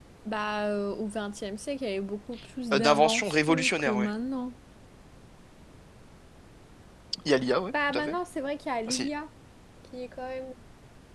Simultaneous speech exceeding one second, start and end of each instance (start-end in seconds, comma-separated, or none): 2.7-4.1